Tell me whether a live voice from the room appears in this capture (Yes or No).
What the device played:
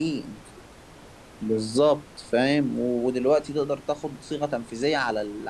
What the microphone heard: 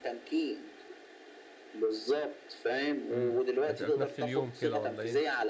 Yes